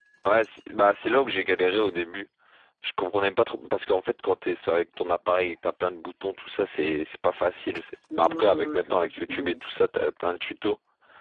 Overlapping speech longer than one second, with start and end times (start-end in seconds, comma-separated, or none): 8.2-9.6